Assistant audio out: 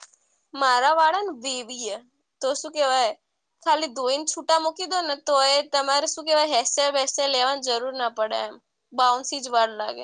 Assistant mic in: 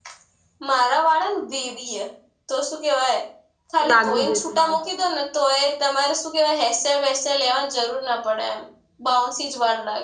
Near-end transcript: લાગવું જો તું બા

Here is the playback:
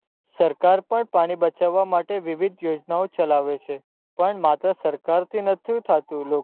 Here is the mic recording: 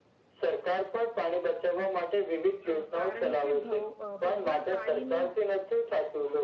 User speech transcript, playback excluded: અ કારણ કે ભ ભૌગોળ પાણી નું

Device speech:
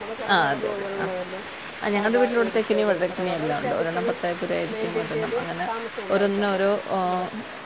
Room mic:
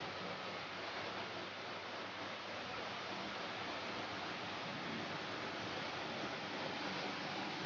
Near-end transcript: none

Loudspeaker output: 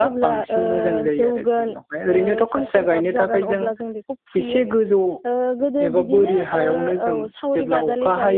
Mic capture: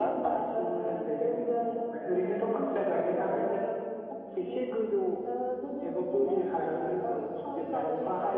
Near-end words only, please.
none

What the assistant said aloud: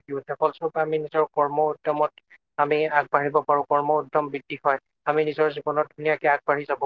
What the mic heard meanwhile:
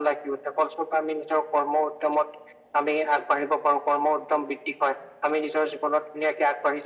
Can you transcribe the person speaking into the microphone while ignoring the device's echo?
none

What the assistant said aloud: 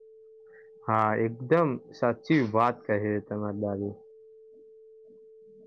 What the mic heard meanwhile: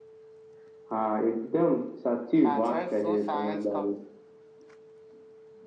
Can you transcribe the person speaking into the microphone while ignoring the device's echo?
પાછળ શું સાયન્સ

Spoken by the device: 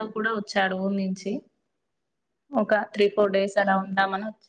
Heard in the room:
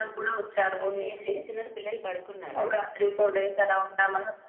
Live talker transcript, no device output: ఇంకా అండి ఏం చేస్తున్నారు పిల్లలు పడుకున్నారా

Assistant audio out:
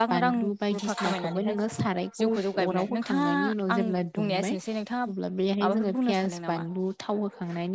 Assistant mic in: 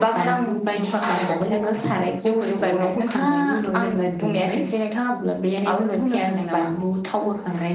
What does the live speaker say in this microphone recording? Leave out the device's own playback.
none

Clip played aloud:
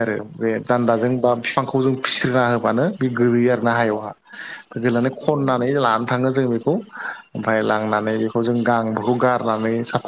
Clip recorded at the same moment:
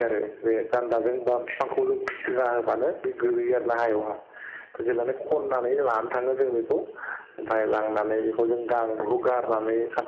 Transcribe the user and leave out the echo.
none

